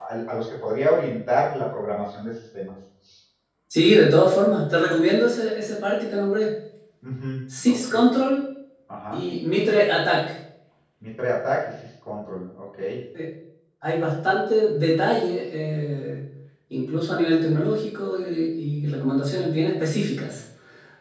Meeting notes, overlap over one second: none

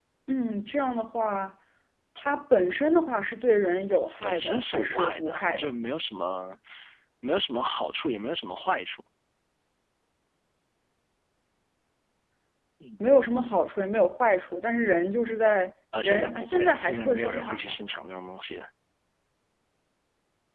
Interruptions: present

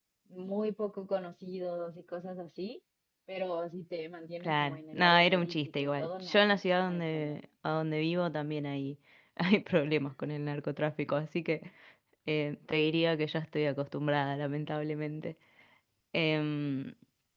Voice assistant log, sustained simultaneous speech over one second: present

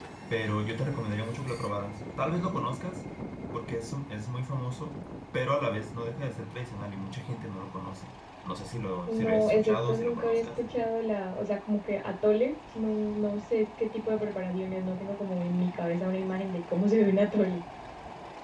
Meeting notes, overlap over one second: present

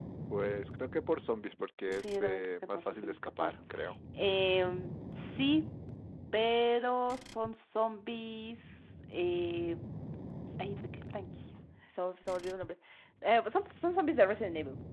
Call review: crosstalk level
present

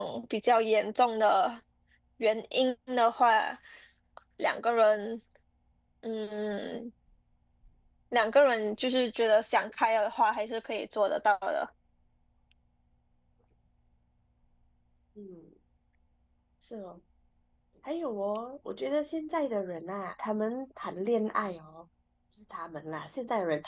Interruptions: none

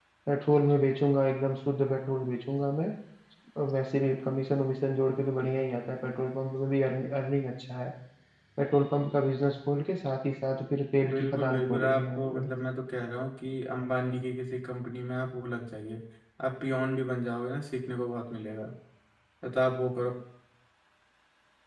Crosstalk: present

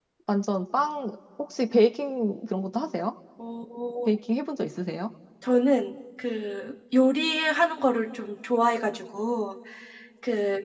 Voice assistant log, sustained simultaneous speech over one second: none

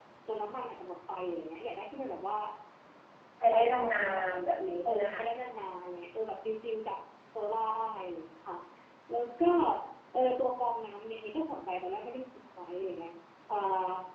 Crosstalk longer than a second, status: present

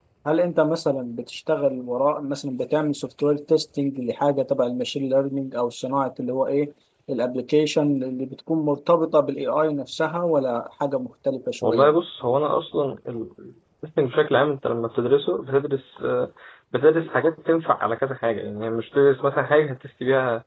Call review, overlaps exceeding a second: none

